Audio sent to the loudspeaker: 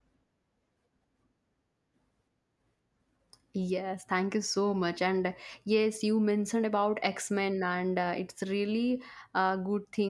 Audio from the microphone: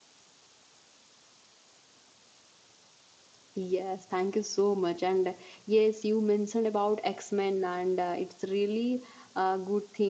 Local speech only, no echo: none

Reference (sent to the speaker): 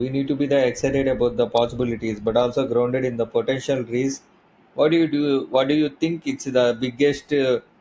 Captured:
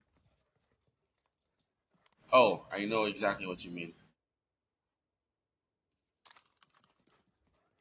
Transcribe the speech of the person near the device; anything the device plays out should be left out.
Oh, I know exactly what you mean.

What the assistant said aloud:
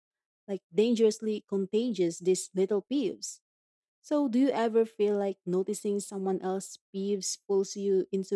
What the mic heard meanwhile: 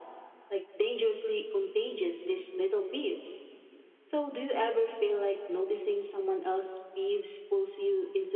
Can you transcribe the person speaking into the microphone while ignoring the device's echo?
none

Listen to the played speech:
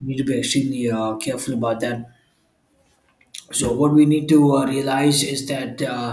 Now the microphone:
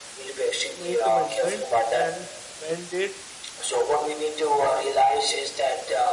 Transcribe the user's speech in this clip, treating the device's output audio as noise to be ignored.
make amendments and mend it

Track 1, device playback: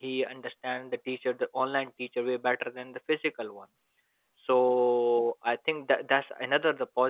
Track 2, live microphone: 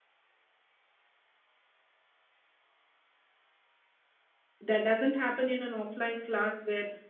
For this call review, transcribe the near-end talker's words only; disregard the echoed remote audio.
That doesn't happen in an offline class where

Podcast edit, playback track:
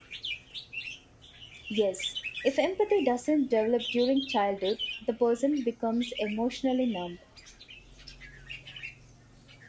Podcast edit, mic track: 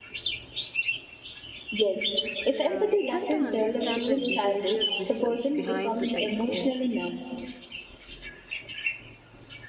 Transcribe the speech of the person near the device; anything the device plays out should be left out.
Yeah, we have to understand the behavior bes- behind the psycho.

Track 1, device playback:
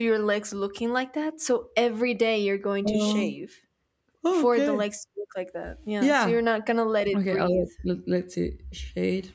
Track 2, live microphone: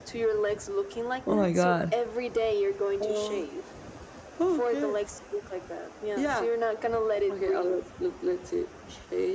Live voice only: Oh my god.

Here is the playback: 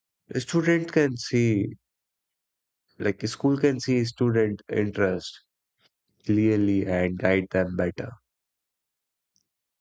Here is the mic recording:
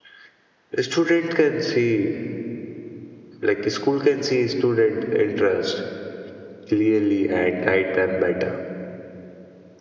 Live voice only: none

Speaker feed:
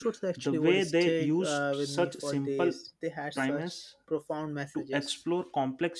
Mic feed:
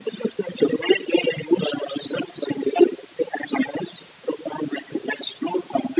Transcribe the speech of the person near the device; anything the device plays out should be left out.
none

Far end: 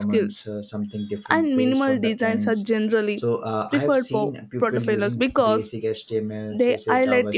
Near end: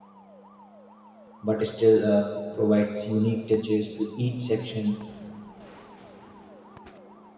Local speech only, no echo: but still uh, provides unique touches to each section

